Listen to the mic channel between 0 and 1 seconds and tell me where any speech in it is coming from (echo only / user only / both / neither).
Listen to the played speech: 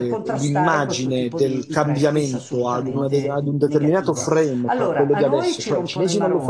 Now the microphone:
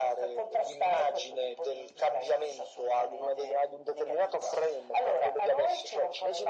echo only